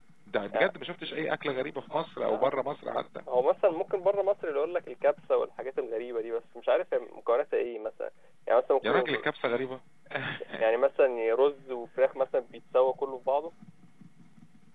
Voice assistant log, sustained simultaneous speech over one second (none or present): none